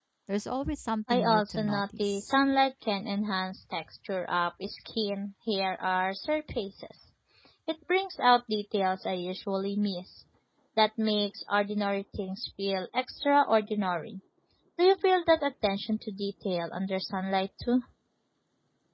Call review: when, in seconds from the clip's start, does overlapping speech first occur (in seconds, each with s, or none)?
1.1 s